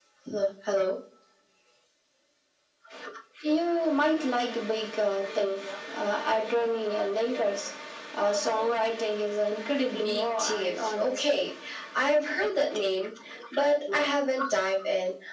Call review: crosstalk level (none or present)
present